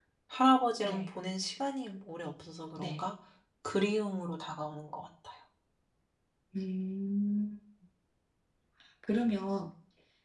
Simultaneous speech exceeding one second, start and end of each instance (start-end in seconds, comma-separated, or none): none